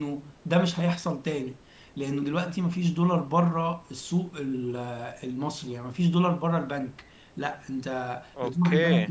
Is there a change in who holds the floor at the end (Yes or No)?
No